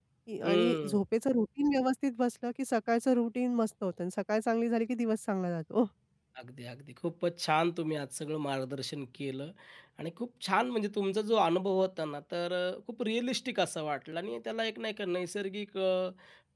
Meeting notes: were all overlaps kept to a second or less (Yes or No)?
Yes